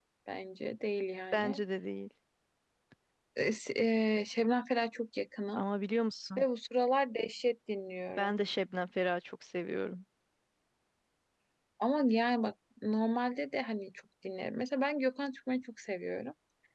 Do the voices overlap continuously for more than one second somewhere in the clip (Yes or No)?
No